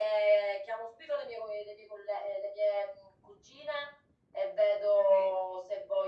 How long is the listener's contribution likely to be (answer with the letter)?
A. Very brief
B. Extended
A